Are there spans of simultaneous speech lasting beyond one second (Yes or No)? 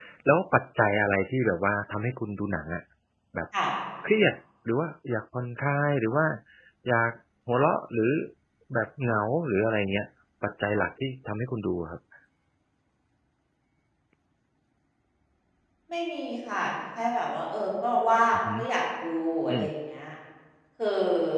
No